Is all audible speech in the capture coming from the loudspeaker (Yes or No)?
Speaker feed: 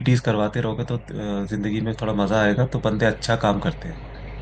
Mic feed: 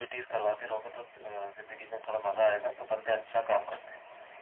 Yes